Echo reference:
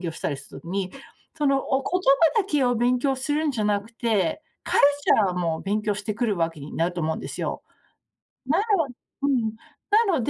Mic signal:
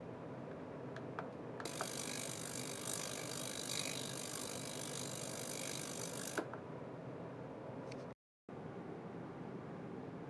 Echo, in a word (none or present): none